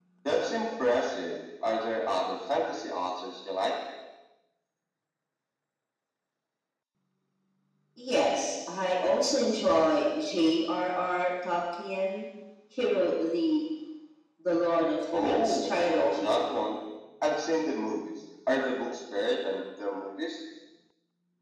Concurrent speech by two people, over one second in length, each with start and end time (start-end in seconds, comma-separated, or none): 15.1-16.4